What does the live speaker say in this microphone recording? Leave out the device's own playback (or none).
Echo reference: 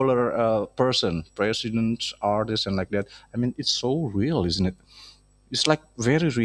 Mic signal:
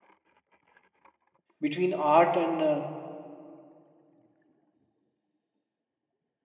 between art and uh,